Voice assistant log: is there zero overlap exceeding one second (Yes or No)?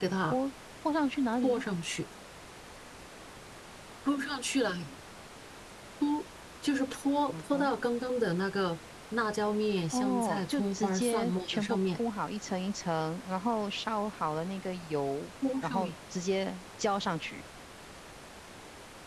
No